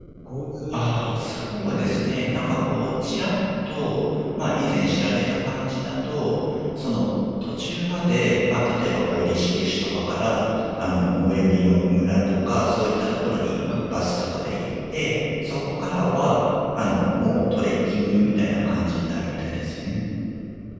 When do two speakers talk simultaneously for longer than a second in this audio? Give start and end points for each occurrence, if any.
0.7-2.4

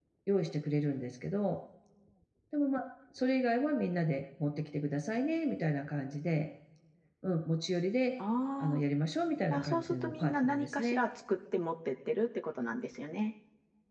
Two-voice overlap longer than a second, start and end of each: 9.5-11.0

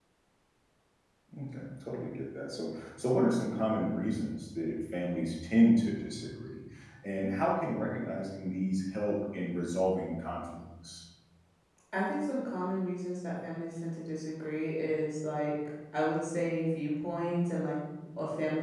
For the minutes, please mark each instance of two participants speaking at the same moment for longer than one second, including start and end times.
none

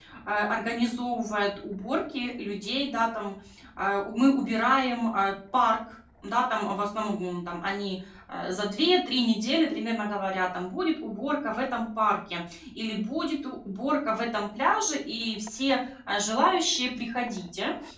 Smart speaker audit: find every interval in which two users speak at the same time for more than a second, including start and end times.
none

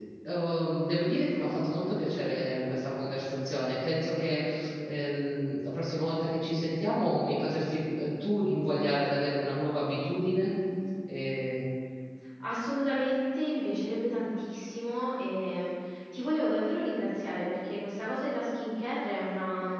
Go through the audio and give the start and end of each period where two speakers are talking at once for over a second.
none

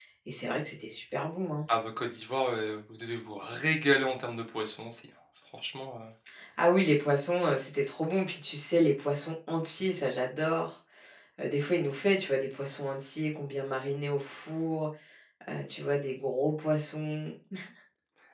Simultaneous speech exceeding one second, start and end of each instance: none

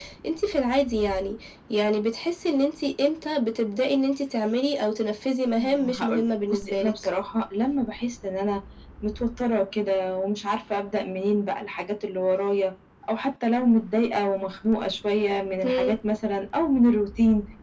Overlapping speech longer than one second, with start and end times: 5.6-6.9

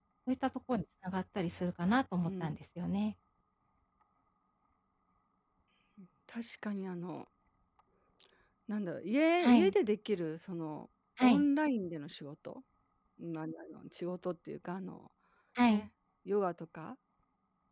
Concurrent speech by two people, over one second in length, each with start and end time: none

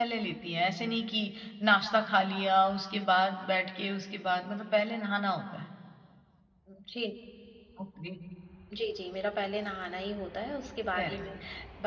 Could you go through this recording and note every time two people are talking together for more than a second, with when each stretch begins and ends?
none

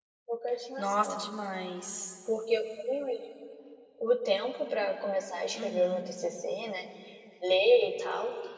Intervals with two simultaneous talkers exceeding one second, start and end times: none

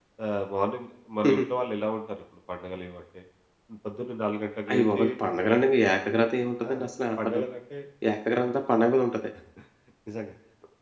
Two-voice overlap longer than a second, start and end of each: none

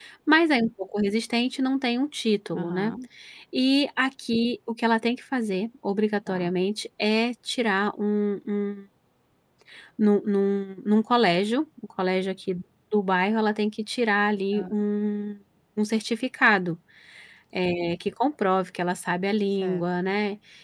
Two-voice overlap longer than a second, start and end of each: none

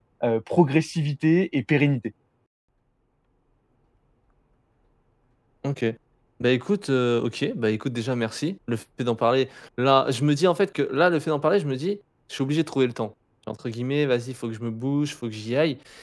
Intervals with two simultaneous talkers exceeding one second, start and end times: none

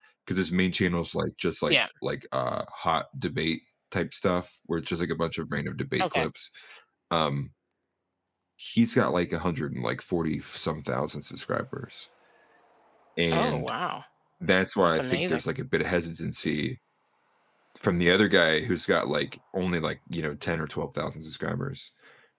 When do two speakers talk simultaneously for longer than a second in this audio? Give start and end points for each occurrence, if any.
none

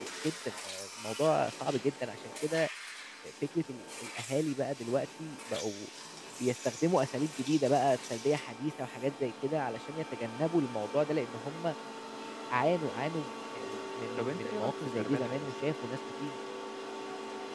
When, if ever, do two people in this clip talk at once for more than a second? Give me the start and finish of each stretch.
14.2-15.6

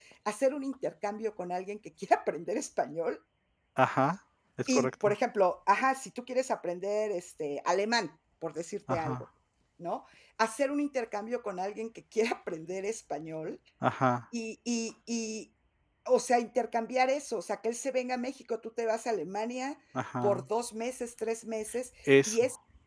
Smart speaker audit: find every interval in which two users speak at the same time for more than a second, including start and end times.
none

